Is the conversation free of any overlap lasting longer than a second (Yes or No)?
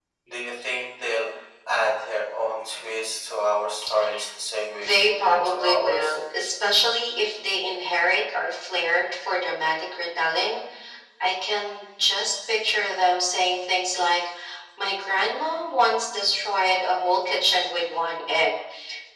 No